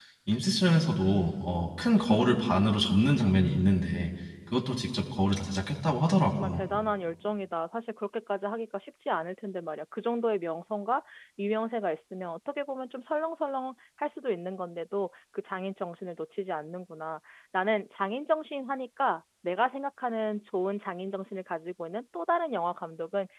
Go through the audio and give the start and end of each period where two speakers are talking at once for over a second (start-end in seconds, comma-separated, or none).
none